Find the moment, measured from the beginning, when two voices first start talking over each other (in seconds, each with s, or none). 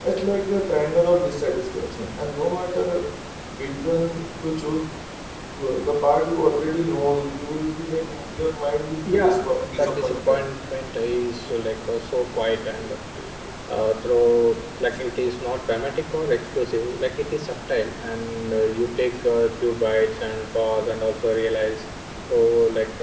9.0 s